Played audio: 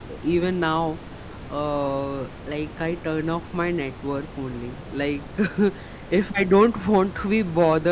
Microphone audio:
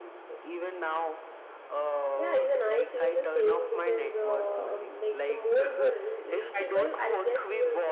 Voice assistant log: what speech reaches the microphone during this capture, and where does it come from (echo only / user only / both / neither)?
both